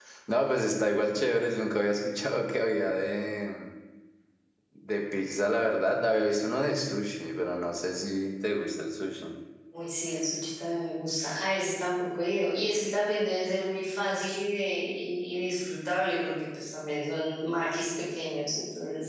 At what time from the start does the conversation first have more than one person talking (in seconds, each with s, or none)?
none